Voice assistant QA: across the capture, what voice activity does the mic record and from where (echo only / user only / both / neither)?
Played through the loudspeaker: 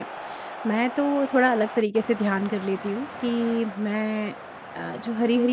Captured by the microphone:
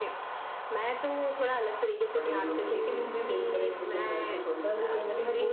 both